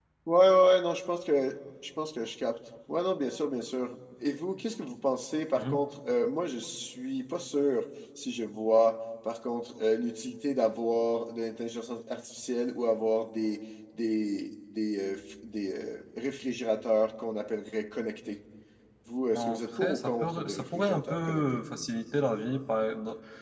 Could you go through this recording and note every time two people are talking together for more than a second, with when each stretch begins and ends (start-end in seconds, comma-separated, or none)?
19.3-21.4